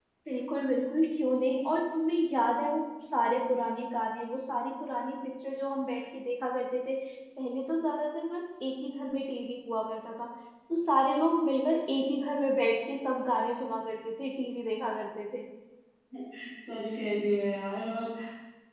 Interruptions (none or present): none